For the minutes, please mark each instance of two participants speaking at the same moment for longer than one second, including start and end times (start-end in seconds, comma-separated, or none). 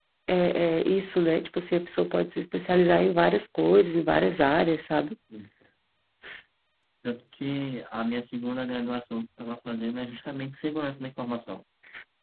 none